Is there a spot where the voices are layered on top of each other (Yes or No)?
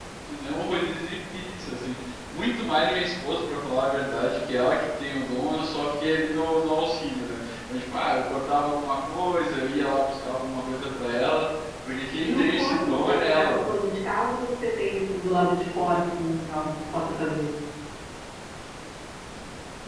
Yes